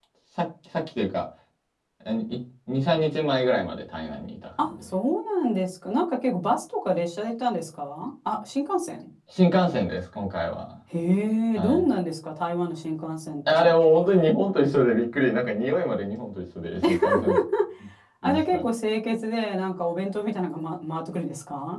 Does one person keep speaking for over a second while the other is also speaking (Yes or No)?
No